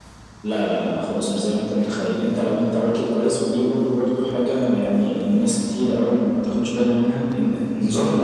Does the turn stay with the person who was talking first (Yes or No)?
Yes